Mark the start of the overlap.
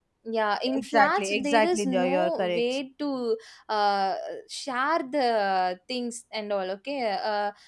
0.8 s

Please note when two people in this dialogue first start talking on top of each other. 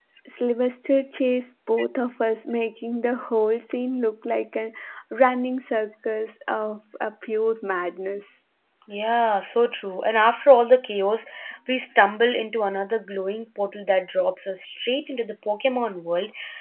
none

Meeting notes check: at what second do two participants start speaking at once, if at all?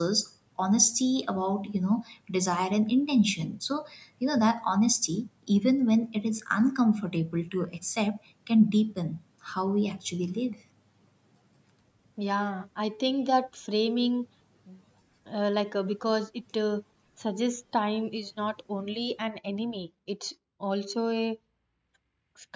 none

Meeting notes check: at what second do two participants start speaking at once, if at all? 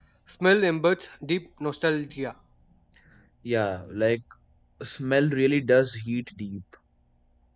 none

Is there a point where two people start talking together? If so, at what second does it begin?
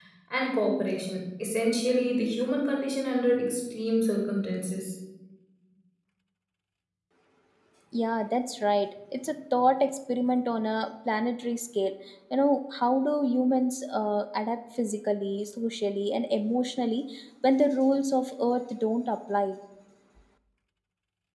none

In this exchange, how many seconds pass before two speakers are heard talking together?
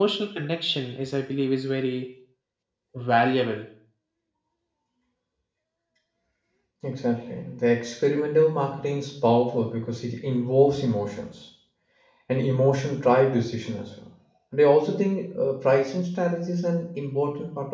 none

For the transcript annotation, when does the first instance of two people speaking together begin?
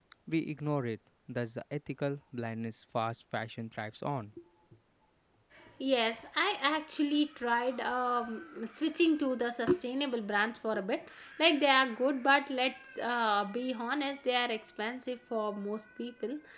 none

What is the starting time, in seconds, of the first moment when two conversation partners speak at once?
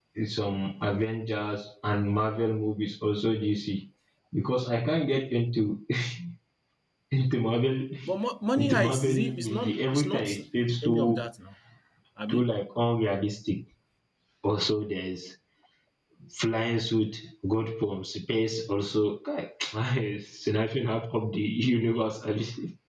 8.6 s

